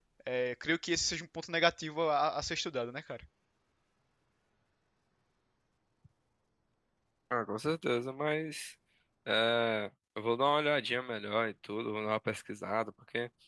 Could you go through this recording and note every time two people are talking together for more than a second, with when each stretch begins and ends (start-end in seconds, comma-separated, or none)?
none